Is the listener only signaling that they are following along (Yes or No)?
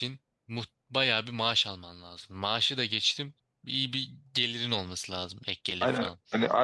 No